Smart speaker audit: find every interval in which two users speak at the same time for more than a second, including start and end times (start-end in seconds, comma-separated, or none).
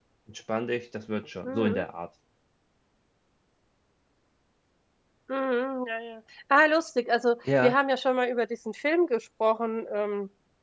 none